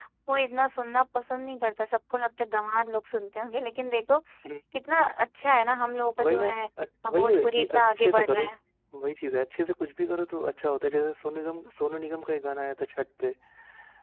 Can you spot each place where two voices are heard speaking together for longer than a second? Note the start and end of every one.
7.1-8.4

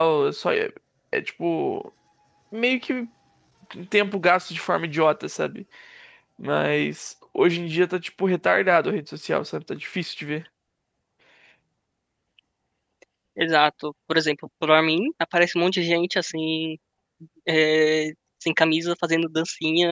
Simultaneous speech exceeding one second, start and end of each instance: none

